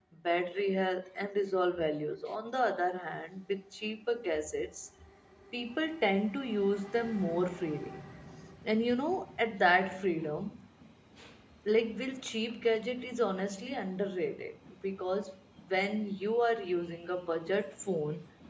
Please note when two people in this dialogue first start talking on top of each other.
none

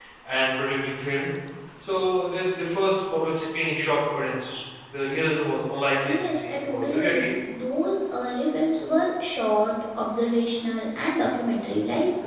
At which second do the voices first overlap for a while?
6.0 s

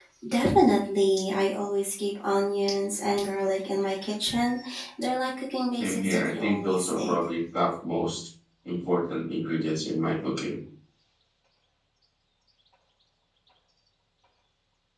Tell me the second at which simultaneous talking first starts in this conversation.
5.8 s

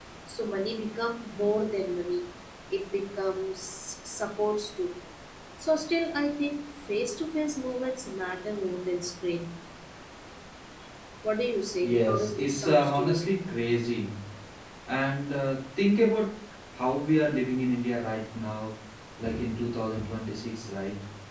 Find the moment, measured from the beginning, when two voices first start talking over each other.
11.8 s

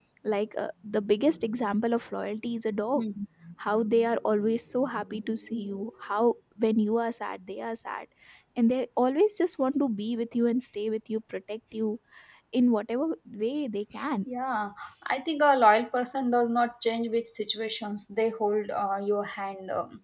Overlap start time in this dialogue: none

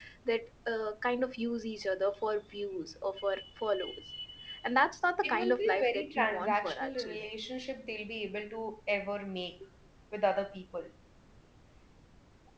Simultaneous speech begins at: 5.2 s

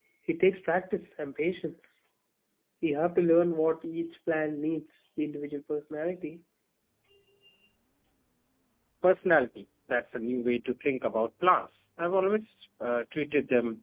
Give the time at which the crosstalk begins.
none

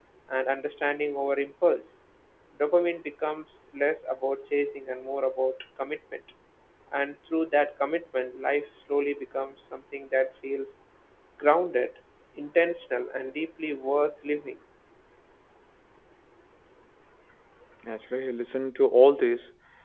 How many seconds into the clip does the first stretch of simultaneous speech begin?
none

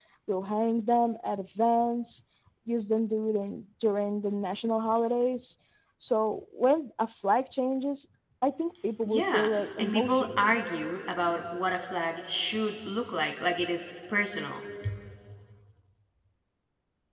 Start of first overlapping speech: 9.1 s

